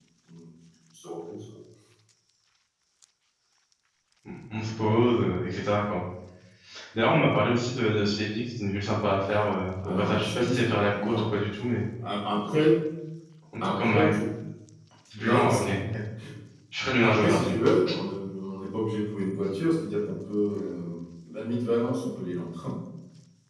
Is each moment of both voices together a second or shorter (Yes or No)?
No